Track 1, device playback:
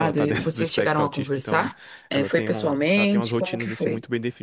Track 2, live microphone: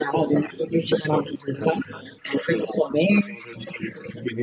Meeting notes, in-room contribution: none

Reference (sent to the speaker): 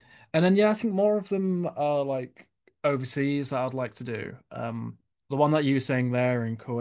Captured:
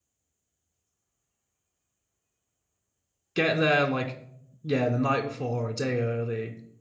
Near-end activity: present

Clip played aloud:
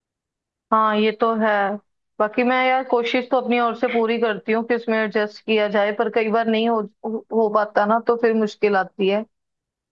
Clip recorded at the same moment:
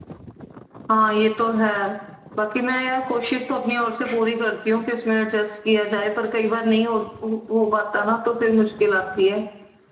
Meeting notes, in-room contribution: none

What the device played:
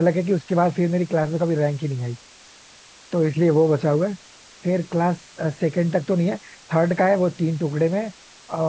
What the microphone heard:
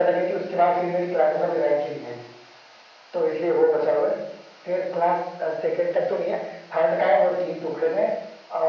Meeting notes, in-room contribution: none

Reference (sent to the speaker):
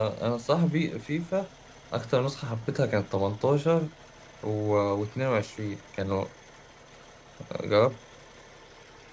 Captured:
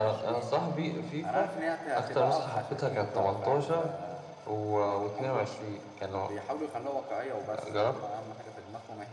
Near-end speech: present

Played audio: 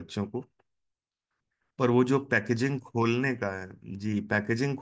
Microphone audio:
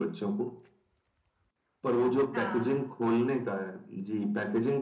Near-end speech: present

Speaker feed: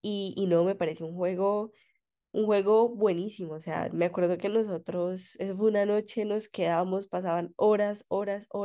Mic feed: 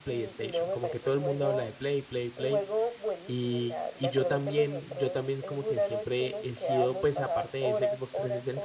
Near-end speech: present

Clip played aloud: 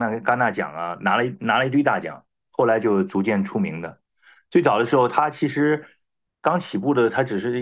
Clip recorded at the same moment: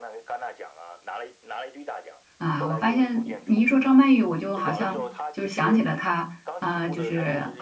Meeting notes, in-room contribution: present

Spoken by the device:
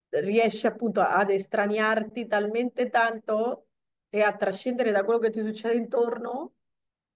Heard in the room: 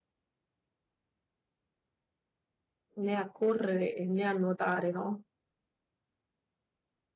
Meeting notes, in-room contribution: present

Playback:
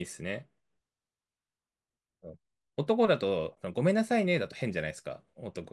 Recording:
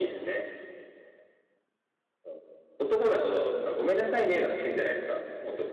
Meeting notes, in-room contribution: none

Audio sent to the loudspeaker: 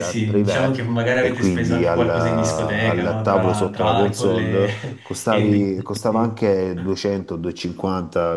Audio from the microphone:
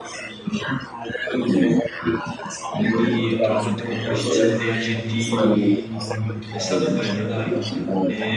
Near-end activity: present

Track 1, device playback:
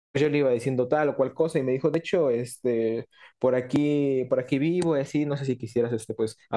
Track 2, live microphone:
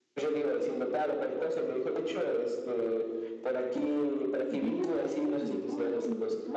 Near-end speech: present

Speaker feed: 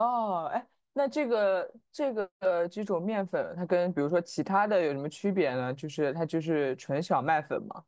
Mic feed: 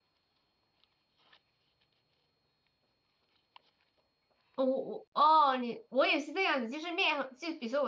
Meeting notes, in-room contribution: present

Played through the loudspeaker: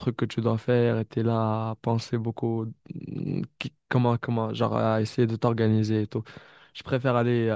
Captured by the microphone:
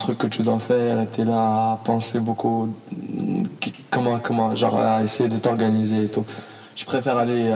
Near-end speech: none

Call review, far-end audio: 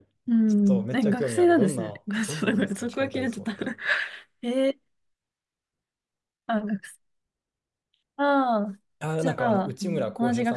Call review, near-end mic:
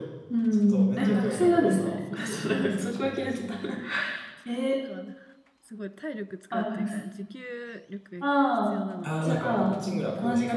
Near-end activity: present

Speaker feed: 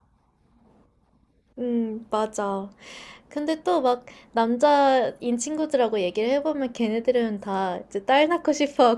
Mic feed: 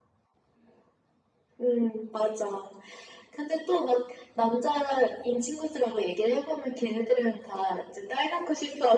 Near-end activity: none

